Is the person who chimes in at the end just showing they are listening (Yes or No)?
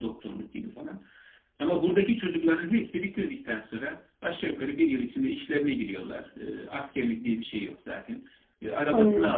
Yes